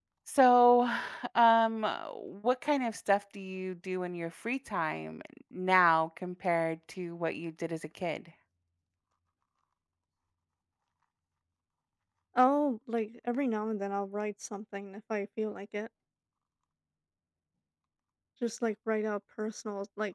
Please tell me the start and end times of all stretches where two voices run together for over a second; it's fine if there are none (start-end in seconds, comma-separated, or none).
none